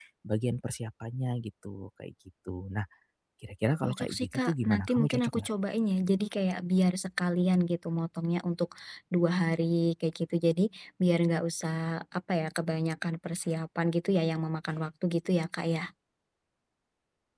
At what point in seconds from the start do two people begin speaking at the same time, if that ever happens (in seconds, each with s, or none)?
3.8 s